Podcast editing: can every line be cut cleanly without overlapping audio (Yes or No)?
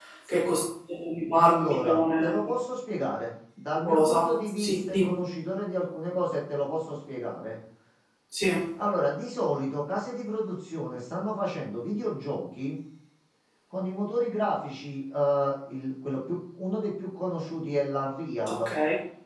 No